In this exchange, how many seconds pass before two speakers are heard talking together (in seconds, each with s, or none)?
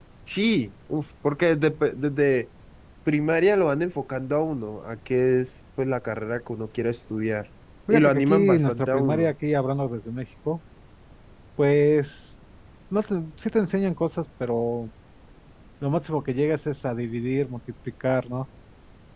7.9 s